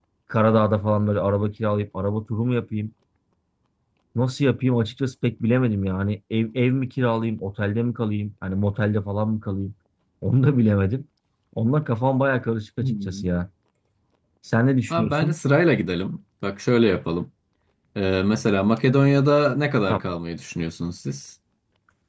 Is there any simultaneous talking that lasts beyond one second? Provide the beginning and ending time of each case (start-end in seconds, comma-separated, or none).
none